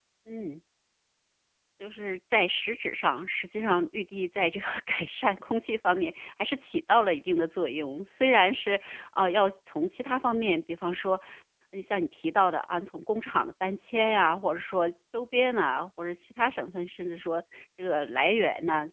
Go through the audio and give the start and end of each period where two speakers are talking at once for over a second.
none

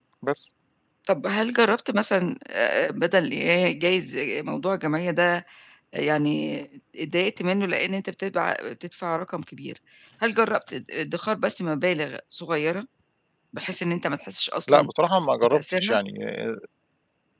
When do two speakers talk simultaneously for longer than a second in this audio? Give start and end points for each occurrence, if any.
none

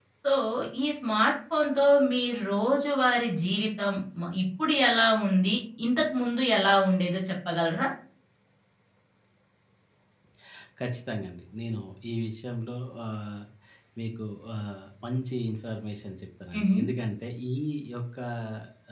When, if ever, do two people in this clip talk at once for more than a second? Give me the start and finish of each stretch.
none

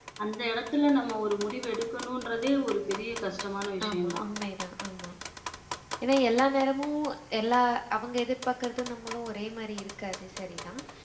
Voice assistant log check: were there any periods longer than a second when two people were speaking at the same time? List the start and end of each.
none

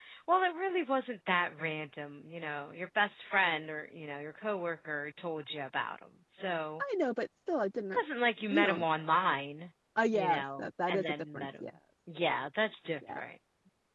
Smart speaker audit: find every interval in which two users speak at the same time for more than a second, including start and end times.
10.1-11.7

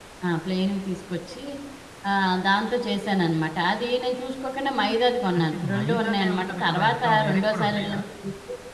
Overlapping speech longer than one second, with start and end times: 5.4-8.0

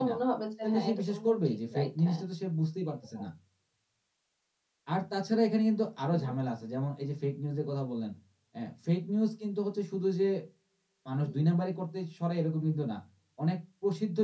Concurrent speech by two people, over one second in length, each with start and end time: 0.6-2.2

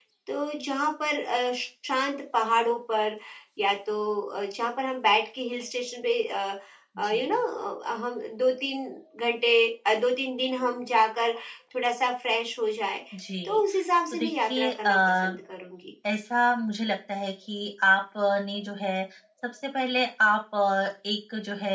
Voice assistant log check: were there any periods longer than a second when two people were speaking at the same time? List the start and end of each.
14.1-15.4

